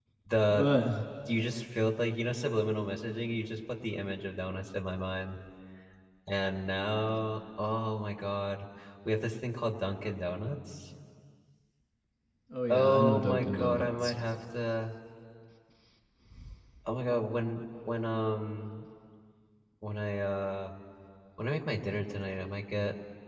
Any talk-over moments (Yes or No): Yes